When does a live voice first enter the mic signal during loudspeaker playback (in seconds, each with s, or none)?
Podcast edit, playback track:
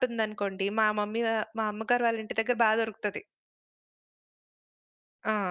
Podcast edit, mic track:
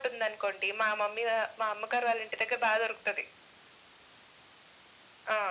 none